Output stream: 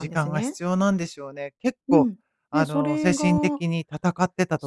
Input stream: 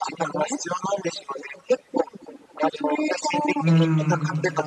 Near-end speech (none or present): present